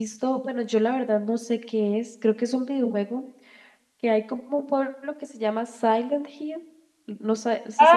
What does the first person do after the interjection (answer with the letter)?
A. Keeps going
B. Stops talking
B